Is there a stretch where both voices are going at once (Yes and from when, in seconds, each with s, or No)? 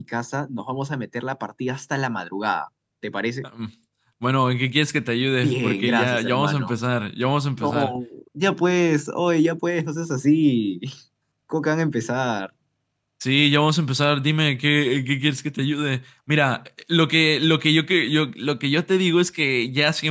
Yes, from 5.4 s